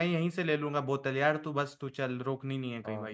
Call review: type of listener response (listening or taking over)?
taking over